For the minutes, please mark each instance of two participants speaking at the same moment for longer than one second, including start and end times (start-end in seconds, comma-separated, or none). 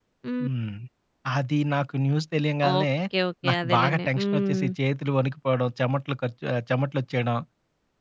3.5-4.7